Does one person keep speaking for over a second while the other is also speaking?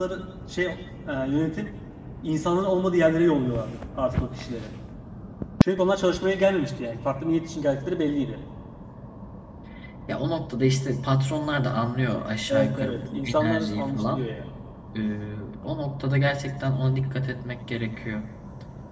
Yes, from 12.5 s

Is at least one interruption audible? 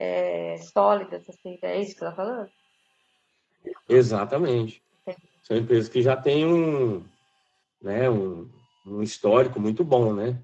No

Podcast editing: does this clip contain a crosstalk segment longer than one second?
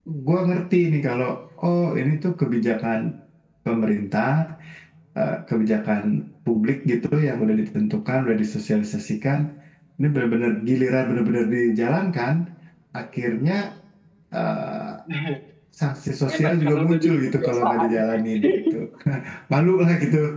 Yes, from 16.3 s

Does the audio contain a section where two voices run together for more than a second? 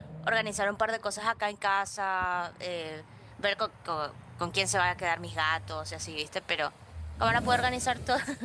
No

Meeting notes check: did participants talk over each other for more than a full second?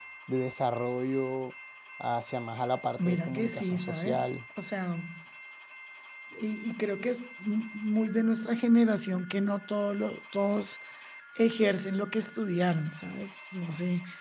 Yes, from 3.0 s

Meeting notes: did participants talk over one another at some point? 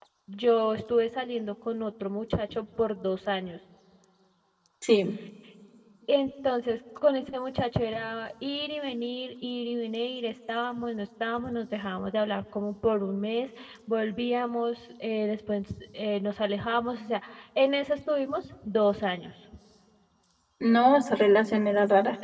No

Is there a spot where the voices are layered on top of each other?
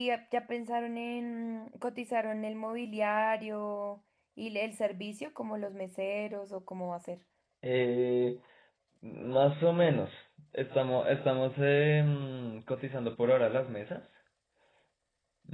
No

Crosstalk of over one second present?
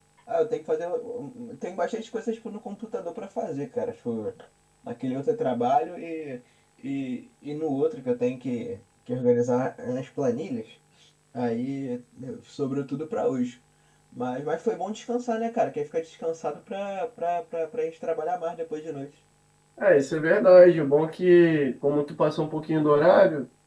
No

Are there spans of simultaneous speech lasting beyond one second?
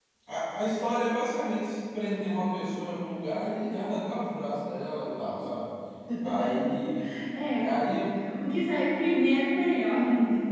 No

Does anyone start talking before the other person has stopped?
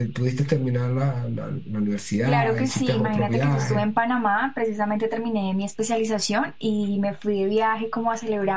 Yes, from 2.3 s

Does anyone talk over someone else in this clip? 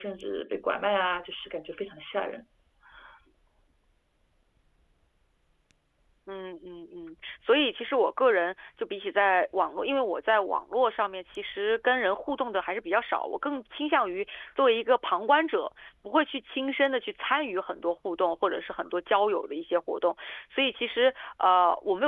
No

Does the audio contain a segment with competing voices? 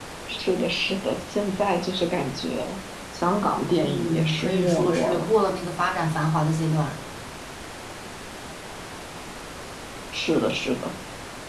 Yes, from 3.8 s

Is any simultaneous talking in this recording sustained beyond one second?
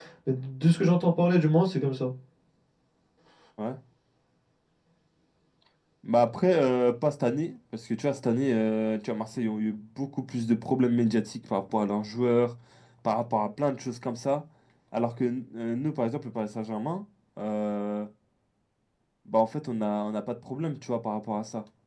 No

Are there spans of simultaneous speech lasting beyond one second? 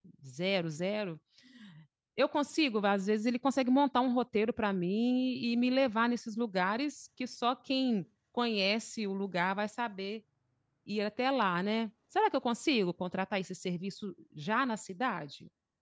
No

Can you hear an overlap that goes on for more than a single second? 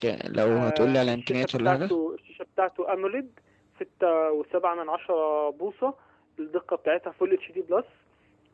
Yes, from 0.5 s

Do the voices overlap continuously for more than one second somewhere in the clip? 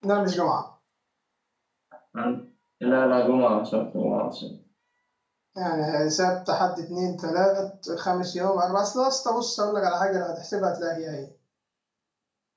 No

